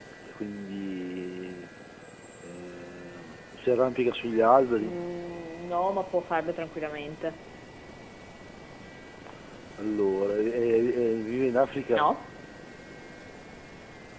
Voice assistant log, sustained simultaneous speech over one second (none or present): none